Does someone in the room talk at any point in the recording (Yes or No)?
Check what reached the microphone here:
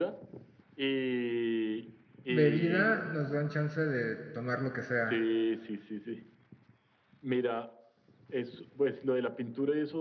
Yes